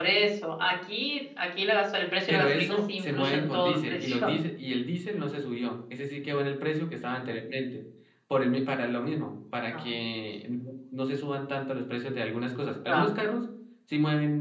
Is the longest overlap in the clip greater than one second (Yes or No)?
Yes